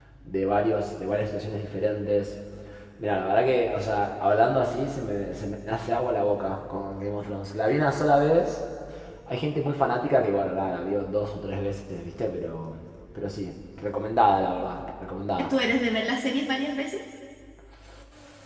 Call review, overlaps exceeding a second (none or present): none